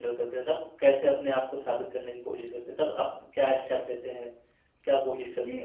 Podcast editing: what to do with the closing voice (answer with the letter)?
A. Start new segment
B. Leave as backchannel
A